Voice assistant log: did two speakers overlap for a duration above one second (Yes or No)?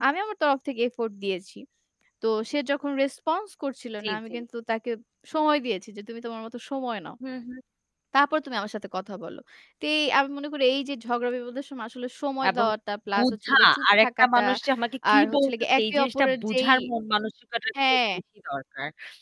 Yes